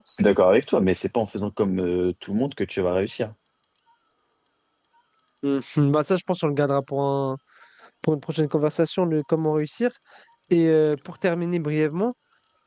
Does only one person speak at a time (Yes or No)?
Yes